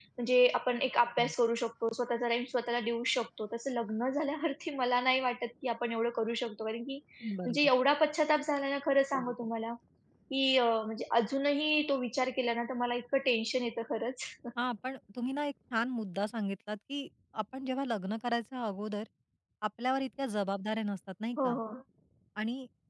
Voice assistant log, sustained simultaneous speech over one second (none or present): none